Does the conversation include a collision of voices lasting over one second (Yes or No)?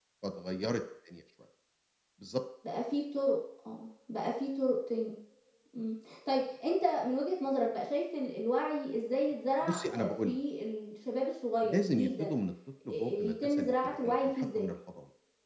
Yes